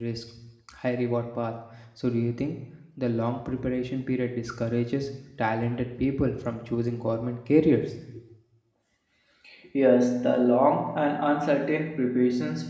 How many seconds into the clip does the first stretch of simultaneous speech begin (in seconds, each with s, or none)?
none